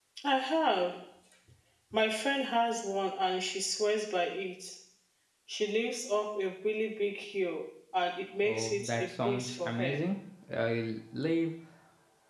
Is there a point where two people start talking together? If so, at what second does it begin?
8.4 s

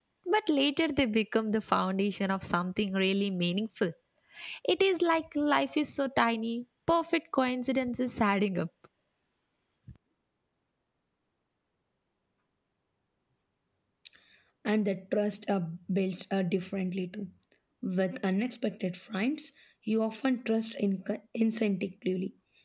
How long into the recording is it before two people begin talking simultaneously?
none

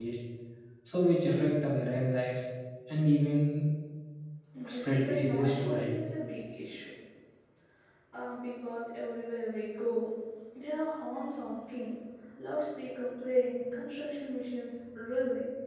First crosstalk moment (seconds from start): 4.7 s

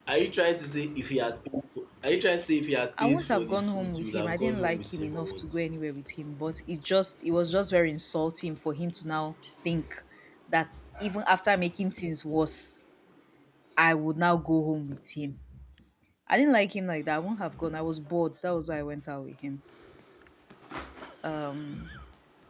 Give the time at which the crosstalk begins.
3.0 s

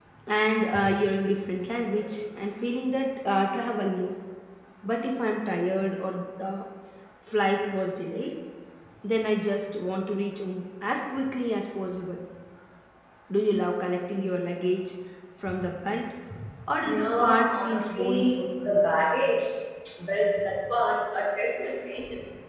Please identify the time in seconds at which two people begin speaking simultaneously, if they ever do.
16.8 s

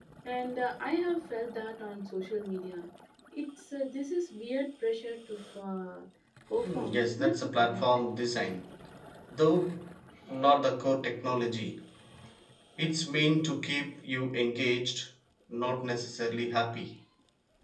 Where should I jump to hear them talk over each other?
6.6 s

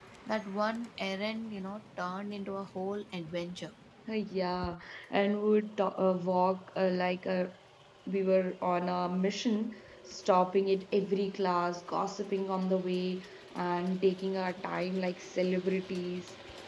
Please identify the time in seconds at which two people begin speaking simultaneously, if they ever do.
none

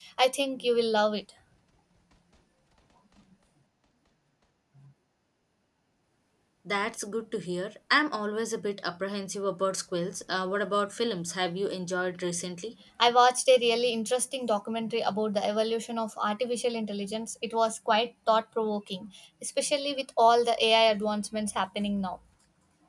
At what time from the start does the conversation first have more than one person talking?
none

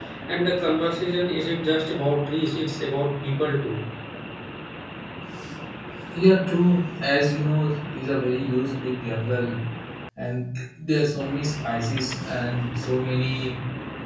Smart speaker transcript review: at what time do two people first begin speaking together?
none

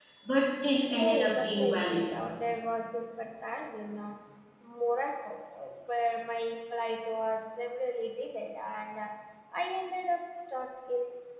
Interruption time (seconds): 1.0 s

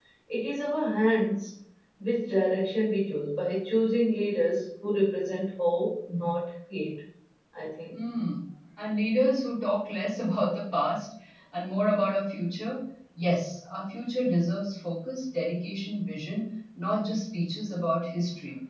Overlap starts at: none

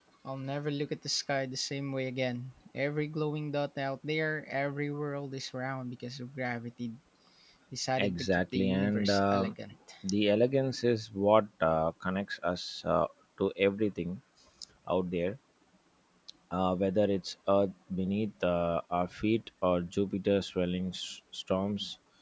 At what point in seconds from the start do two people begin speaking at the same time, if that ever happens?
8.0 s

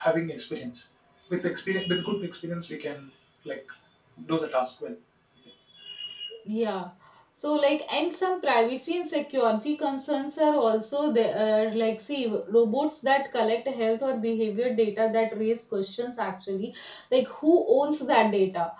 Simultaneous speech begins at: none

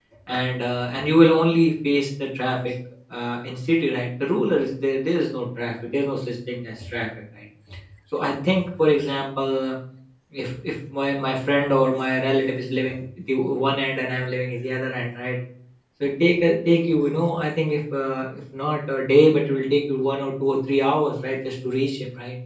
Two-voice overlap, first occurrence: none

